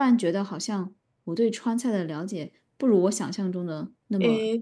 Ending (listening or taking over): taking over